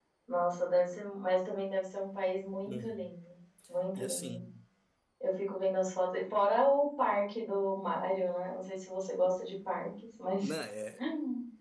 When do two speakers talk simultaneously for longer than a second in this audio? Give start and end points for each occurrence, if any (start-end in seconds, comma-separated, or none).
none